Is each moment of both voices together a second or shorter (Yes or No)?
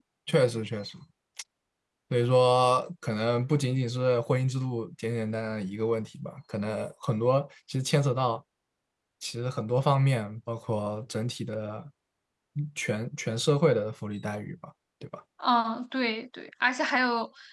Yes